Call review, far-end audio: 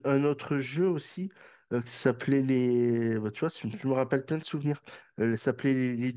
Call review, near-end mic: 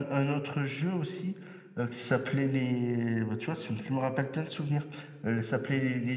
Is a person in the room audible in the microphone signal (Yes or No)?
No